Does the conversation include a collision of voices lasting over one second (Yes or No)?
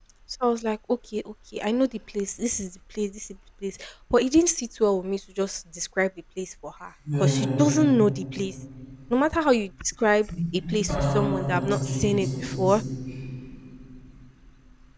Yes